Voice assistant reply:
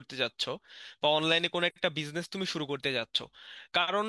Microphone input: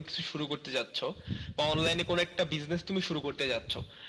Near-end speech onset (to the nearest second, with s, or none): none